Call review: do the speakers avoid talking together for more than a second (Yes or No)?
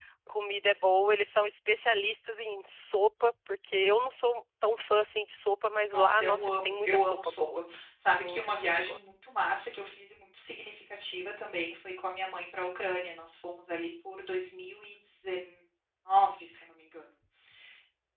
No